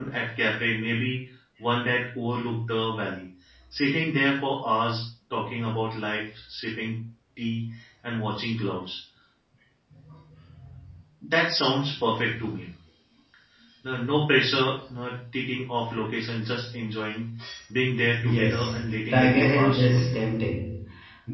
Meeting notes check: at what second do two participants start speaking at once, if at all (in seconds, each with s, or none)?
18.2 s